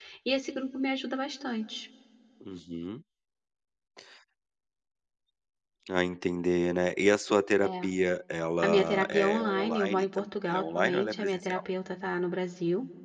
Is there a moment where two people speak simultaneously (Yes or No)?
Yes